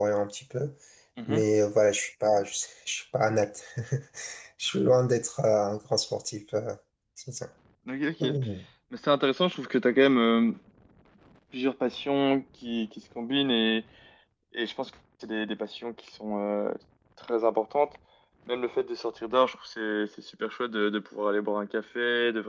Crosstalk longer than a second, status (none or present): none